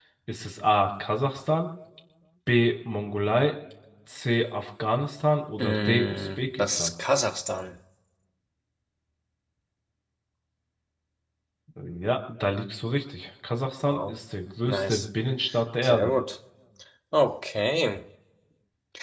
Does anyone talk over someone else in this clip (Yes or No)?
Yes